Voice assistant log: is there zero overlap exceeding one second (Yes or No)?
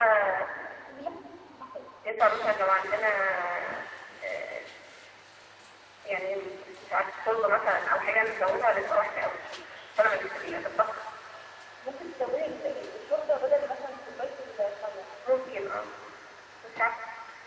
Yes